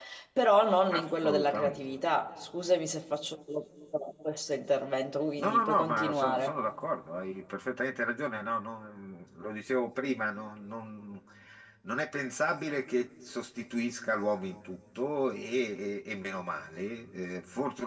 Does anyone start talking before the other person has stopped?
Yes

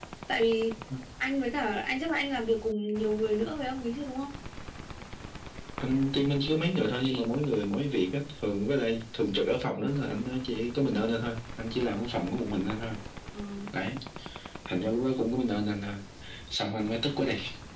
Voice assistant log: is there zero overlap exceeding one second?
Yes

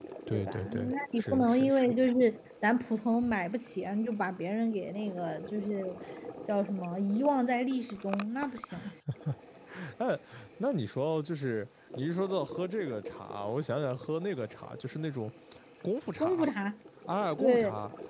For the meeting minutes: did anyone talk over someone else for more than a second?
Yes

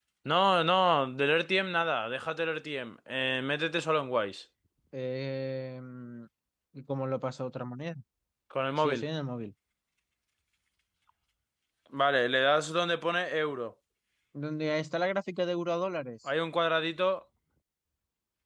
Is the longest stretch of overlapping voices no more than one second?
Yes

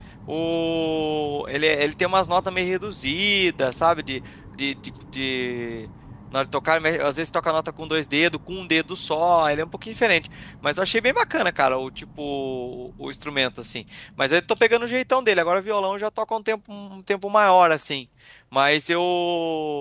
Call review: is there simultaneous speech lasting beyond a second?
No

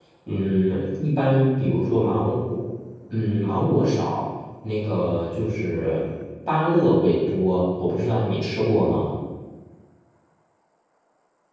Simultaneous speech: No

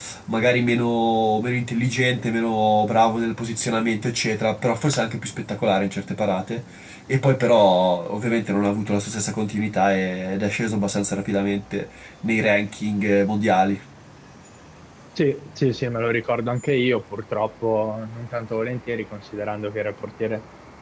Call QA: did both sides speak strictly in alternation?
Yes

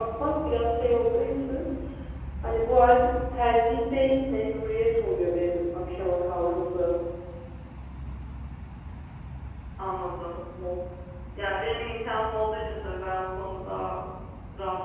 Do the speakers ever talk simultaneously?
No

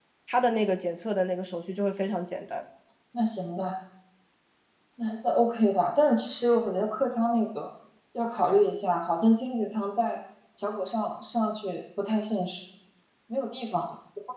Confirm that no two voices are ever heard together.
Yes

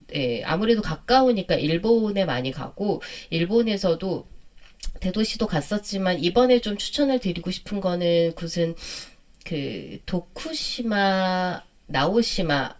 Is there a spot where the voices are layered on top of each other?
No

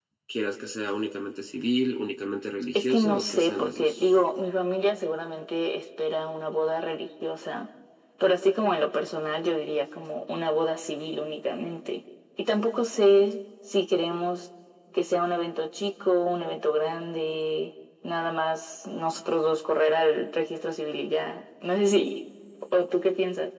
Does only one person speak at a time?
No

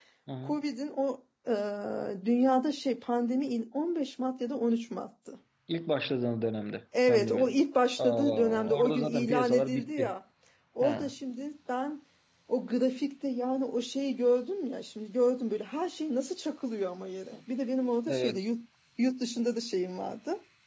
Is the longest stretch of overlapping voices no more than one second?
No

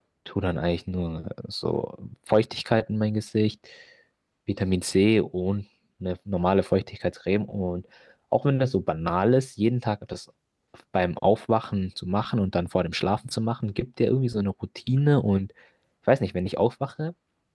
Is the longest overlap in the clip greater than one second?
No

